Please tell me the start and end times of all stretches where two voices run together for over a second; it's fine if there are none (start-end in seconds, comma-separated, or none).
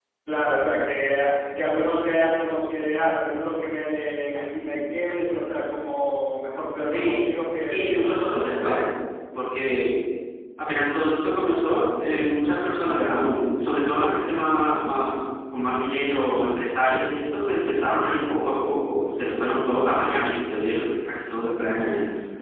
7.7-8.9